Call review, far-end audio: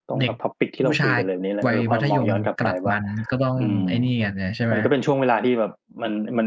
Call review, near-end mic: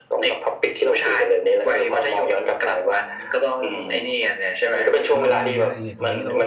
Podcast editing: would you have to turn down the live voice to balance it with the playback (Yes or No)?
No